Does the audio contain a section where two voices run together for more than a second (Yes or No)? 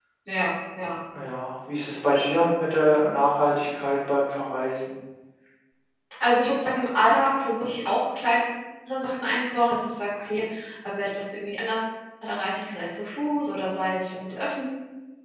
No